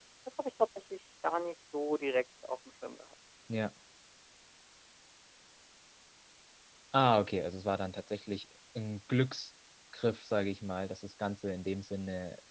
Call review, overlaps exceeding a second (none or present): none